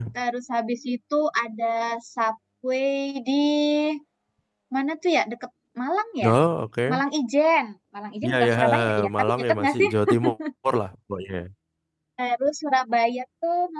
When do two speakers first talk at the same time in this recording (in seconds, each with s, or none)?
8.2 s